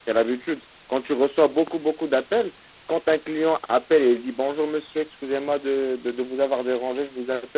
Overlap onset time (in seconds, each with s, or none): none